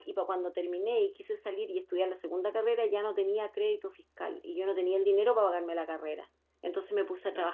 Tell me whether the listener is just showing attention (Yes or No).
Yes